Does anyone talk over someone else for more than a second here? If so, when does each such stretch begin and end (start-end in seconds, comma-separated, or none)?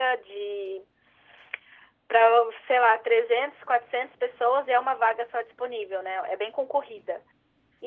none